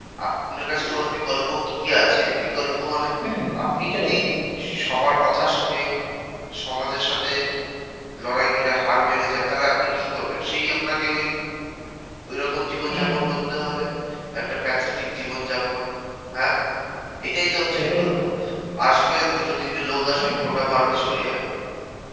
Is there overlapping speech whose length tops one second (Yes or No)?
No